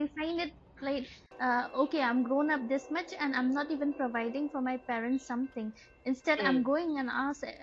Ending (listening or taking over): listening